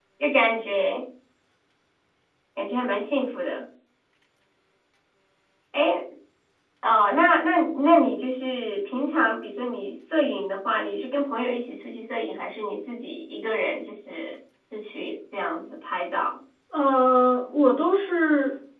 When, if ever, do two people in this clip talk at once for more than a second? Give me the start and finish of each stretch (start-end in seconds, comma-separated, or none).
none